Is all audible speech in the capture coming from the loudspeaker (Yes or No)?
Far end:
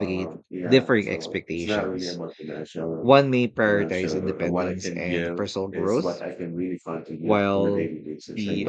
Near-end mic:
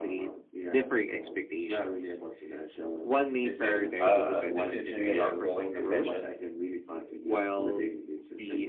No